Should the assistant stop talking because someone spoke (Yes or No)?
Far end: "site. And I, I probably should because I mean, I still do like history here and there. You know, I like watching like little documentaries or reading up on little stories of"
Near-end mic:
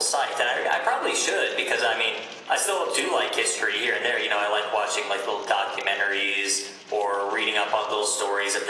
No